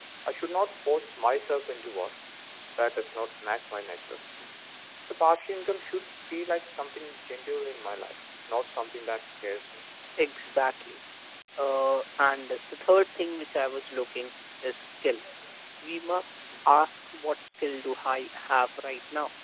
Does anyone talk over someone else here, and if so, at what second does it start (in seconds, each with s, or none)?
none